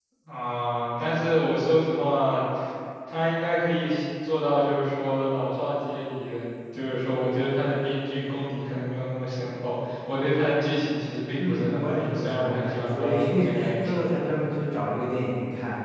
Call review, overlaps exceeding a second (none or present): present